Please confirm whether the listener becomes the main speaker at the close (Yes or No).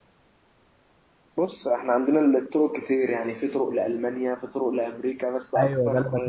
Yes